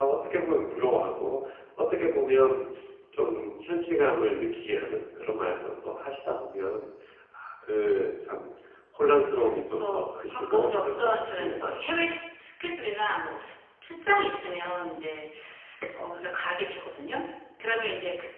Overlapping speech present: Yes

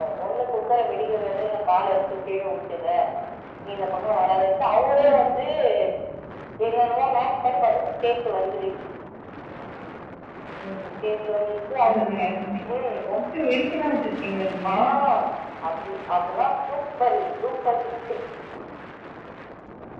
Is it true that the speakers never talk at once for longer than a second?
Yes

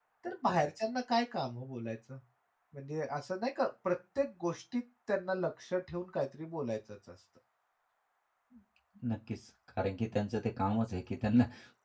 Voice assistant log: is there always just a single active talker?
Yes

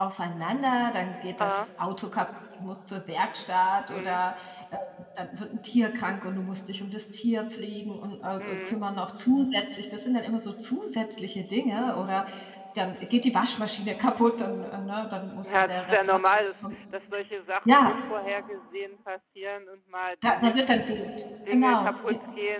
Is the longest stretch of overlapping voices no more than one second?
No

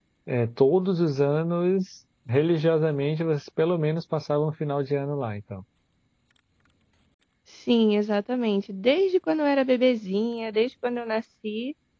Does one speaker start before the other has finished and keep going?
No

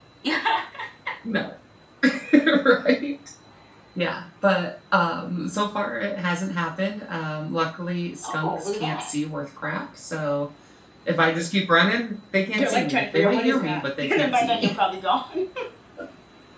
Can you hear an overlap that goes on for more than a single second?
Yes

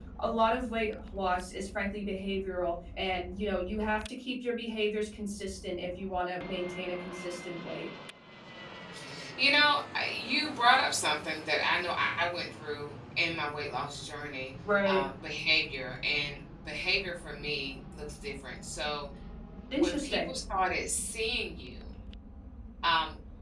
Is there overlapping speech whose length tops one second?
No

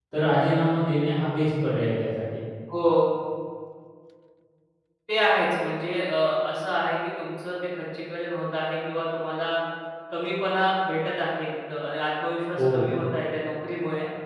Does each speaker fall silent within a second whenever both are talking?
Yes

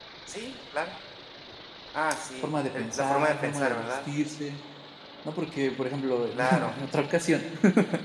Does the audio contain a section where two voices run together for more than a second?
Yes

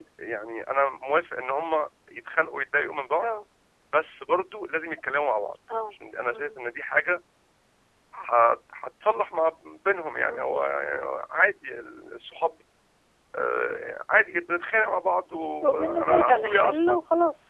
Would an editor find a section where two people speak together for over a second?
Yes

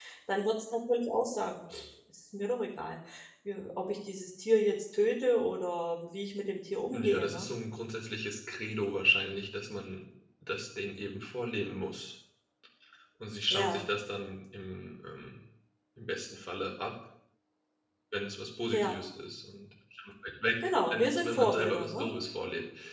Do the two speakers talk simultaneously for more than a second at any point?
Yes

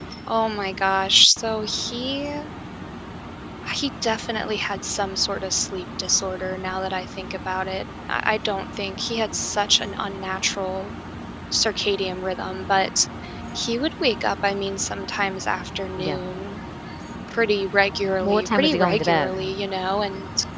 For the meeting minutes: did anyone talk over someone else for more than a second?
Yes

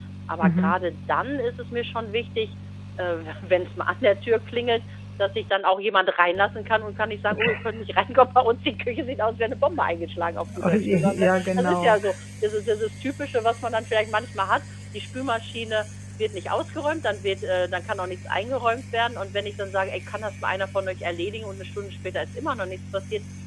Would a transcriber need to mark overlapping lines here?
Yes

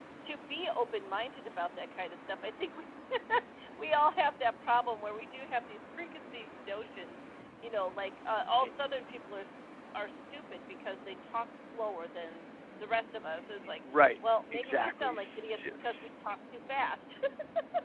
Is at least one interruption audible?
Yes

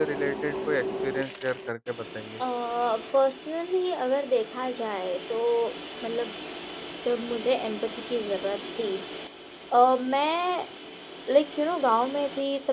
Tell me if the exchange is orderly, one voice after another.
Yes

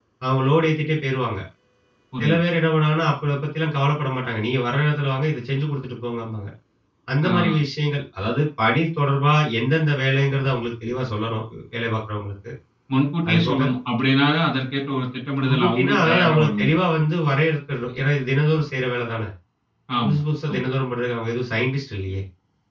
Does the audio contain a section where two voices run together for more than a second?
Yes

